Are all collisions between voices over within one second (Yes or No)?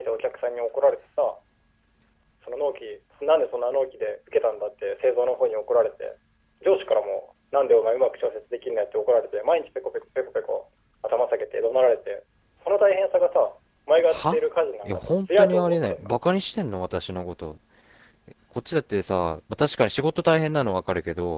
No